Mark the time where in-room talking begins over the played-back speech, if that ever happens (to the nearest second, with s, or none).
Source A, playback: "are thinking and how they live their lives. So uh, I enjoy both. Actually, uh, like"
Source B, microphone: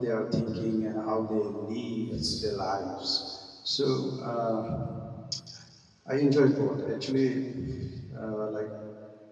2 s